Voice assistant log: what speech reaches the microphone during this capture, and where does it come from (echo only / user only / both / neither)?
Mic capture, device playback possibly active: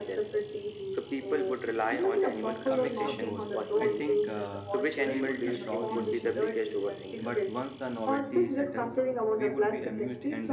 both